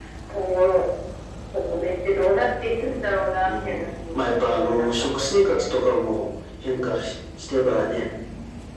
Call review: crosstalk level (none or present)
present